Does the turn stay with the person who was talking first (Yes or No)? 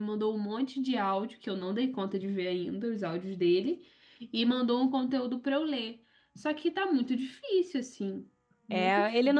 No